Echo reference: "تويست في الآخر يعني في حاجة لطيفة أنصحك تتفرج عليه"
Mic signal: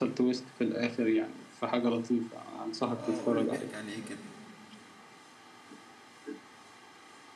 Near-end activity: present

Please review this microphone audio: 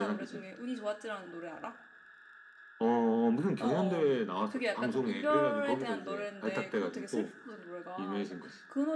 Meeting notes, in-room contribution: present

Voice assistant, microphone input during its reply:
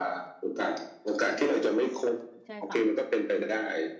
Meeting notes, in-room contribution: present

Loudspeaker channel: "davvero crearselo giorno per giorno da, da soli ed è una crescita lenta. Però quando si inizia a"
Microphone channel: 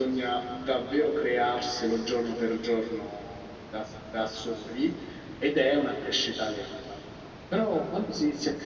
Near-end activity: none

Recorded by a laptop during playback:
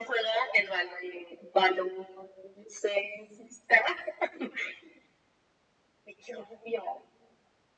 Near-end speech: none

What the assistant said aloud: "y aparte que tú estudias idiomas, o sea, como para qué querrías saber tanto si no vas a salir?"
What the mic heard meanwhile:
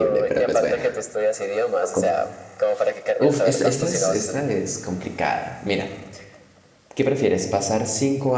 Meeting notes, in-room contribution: present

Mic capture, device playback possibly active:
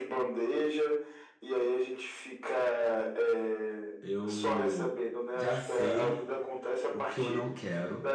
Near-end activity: present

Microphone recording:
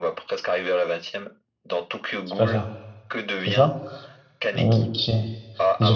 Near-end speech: present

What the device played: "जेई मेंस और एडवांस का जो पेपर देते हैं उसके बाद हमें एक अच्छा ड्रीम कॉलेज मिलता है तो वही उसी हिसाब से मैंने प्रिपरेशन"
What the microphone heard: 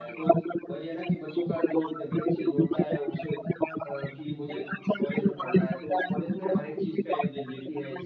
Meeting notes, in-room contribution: present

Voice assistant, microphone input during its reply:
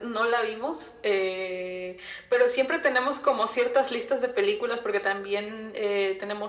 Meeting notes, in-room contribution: none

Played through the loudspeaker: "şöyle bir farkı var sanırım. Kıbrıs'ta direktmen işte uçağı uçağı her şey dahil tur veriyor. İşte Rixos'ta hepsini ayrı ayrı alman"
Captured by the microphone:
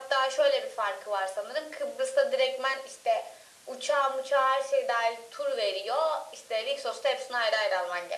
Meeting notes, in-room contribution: none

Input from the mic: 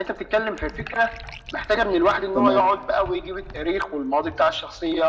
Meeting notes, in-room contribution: present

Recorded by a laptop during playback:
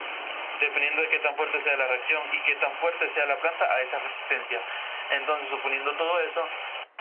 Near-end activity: none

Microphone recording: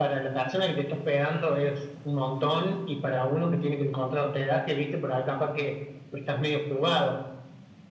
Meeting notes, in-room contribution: none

